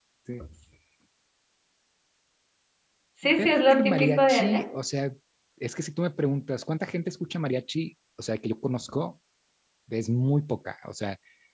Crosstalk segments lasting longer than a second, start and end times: 3.4-4.6

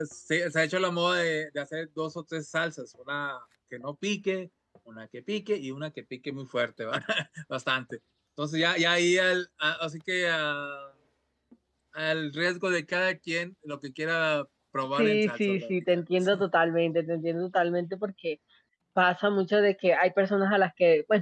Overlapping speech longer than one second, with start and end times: 15.0-16.3

